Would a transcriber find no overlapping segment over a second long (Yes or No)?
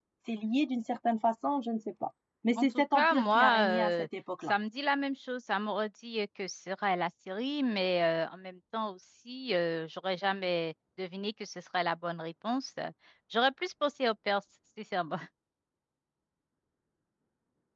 No